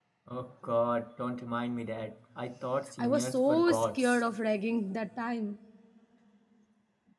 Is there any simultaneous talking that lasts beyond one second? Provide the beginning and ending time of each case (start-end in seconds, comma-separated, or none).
3.0-4.2